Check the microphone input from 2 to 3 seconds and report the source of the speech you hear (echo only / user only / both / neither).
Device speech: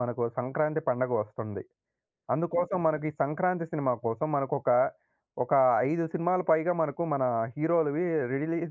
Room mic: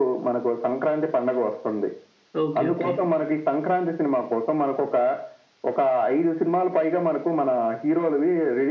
both